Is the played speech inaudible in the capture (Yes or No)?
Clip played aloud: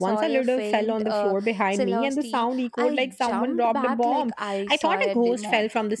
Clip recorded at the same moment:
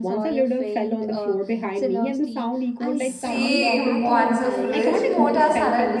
No